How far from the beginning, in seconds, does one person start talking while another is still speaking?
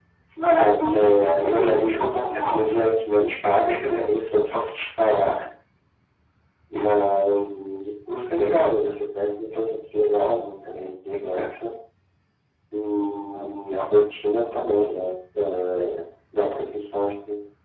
1 s

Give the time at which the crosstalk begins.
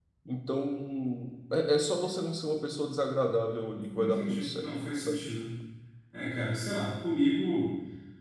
4 s

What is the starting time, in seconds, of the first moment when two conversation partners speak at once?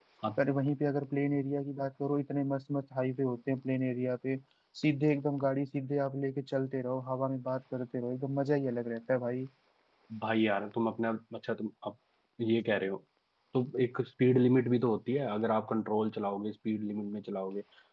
none

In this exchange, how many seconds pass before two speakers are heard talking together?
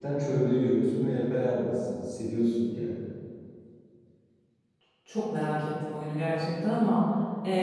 none

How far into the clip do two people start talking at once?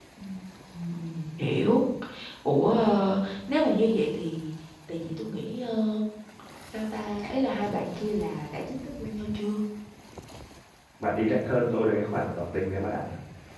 none

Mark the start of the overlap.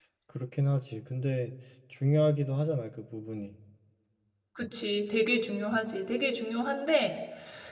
none

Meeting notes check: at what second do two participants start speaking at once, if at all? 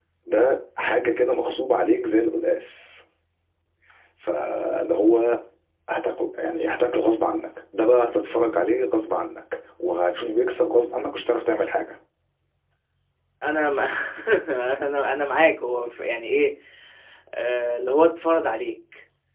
none

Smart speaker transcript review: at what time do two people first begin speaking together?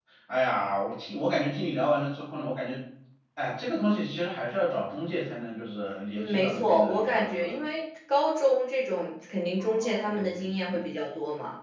6 s

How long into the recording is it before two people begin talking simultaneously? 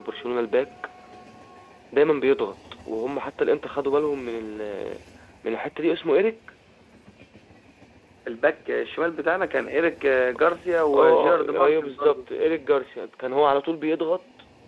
11 s

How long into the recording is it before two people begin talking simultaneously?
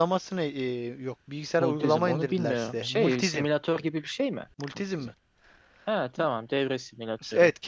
2 s

